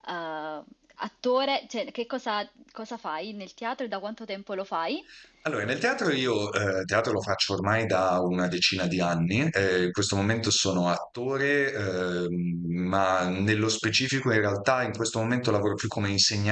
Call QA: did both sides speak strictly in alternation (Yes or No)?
Yes